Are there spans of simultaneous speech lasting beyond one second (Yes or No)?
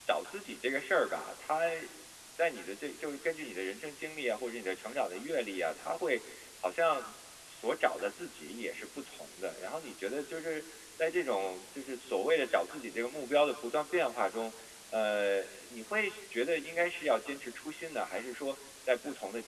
No